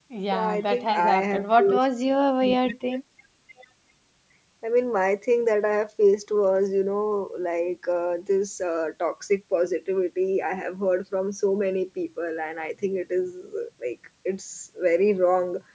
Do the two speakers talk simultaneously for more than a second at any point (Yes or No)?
Yes